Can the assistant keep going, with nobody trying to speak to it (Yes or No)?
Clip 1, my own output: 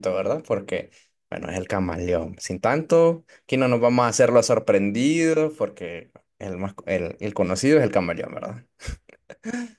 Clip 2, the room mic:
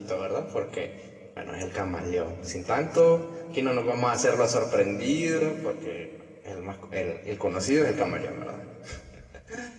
Yes